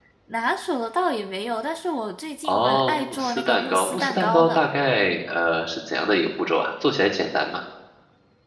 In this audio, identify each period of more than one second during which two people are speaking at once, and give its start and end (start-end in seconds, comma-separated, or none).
2.4-4.6